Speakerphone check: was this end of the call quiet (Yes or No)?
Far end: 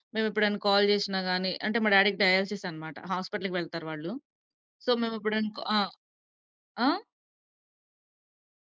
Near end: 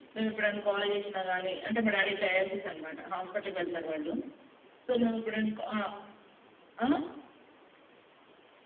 Yes